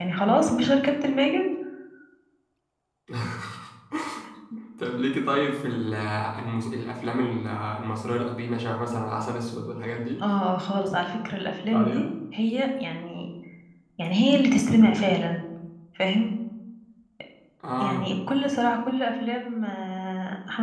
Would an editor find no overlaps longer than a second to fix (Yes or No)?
Yes